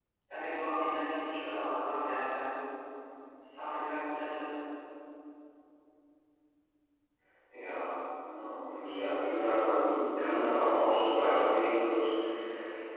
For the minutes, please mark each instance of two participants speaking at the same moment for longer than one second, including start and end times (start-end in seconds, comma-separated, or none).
none